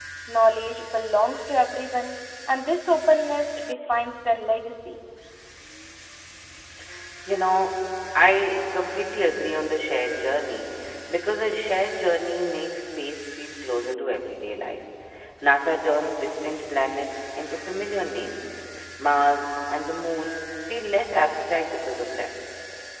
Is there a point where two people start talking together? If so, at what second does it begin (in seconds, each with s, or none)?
none